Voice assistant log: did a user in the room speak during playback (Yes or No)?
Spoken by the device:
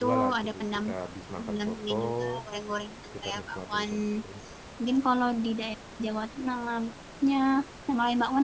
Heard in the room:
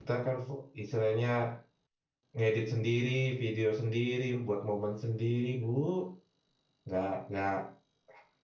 Yes